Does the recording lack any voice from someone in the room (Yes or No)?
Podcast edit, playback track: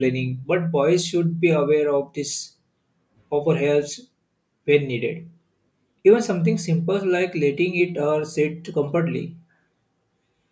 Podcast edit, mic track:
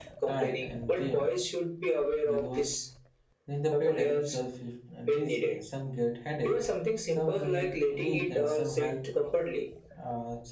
No